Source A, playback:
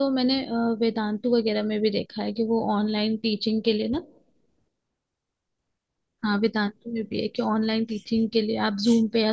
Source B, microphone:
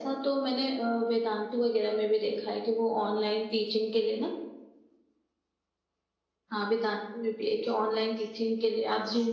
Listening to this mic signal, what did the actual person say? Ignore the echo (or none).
none